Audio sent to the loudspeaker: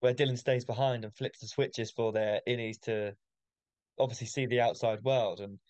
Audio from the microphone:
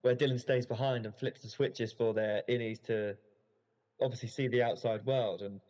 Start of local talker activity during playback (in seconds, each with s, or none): none